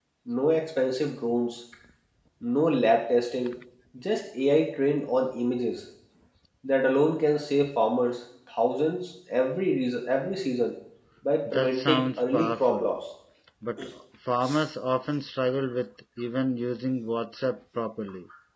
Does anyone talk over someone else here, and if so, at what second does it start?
11.5 s

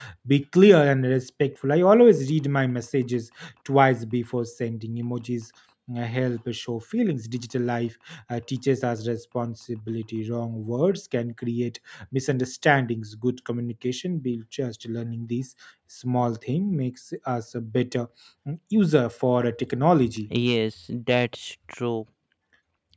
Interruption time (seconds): none

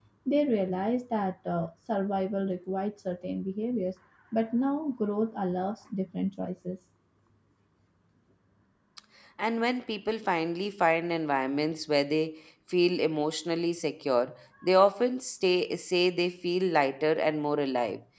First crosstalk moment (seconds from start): none

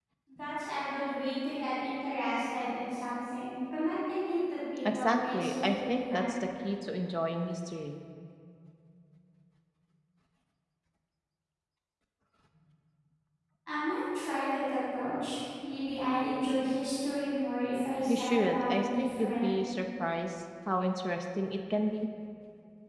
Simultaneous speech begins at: 4.9 s

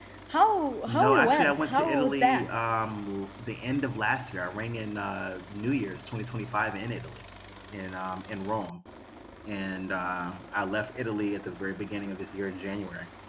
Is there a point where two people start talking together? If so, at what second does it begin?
0.9 s

